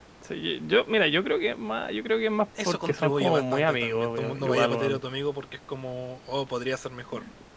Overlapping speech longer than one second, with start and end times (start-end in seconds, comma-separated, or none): 2.6-5.0